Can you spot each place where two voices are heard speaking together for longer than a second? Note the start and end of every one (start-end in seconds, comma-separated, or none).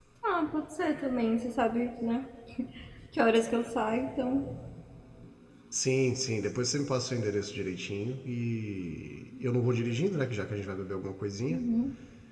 none